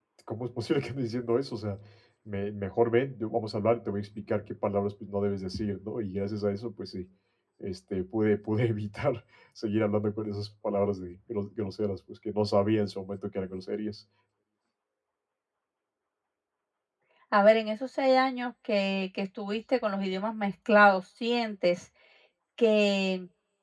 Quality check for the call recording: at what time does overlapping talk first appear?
none

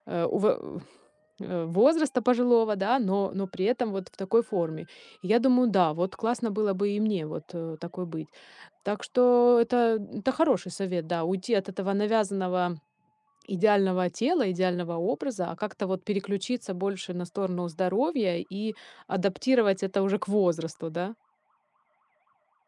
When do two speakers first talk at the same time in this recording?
none

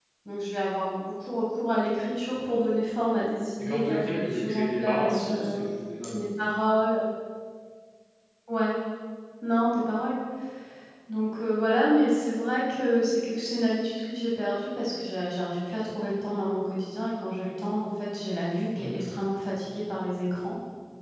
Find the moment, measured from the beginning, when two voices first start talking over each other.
3.6 s

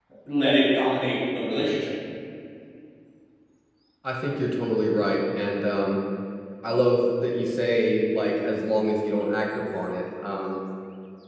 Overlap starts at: none

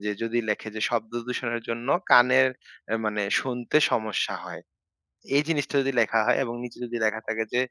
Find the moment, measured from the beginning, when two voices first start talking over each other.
none

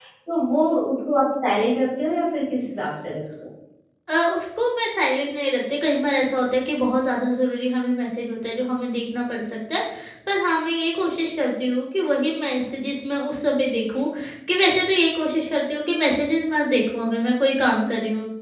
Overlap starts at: none

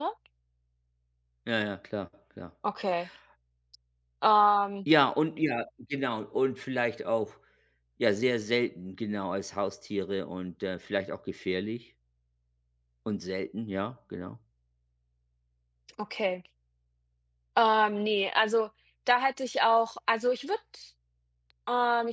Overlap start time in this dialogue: none

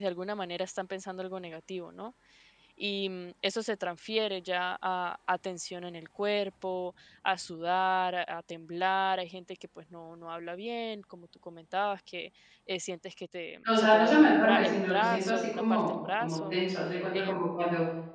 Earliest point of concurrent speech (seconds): 13.8 s

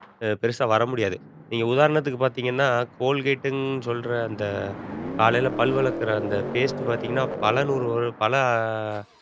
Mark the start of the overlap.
none

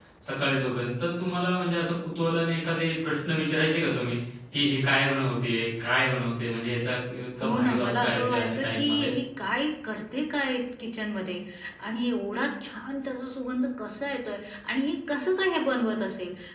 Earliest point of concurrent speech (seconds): 7.4 s

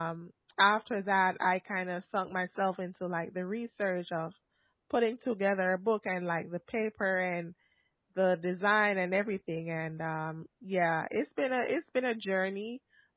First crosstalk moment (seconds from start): none

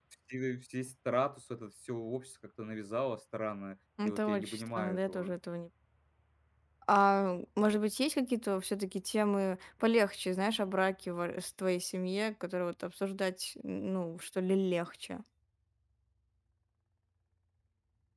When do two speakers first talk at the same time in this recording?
4.0 s

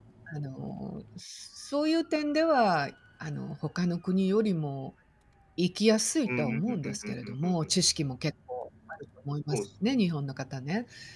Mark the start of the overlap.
6.3 s

